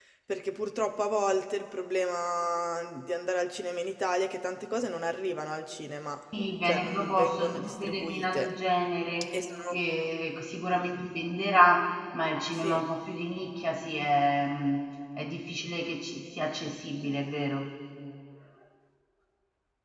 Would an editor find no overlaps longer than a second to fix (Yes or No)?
No